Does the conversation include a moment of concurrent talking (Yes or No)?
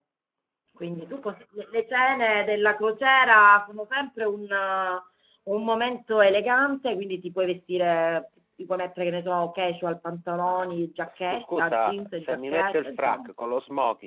Yes